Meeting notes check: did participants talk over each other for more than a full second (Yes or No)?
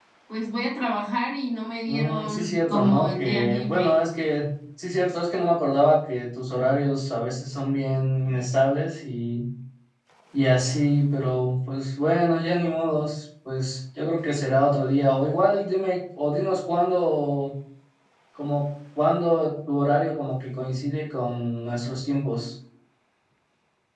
Yes